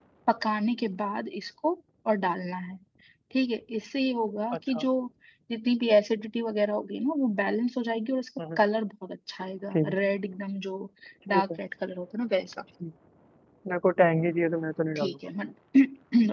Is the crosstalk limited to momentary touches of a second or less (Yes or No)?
Yes